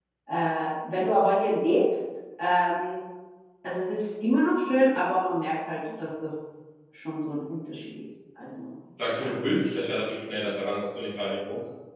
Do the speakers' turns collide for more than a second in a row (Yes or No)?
No